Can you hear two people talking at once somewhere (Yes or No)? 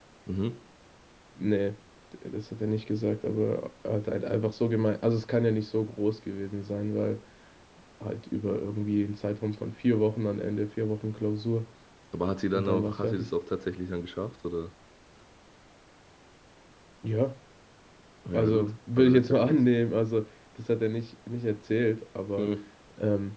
Yes